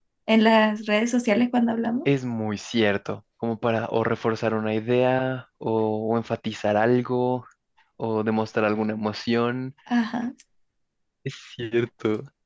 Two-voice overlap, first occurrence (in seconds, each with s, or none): none